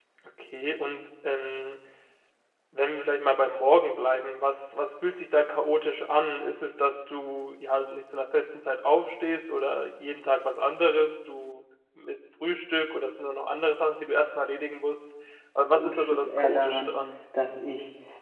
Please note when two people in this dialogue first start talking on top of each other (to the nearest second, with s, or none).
16 s